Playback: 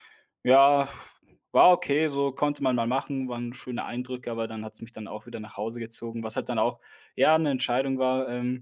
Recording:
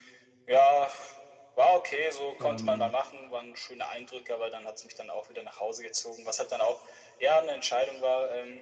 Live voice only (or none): ähm,